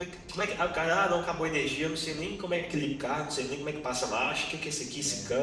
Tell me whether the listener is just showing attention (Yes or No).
Yes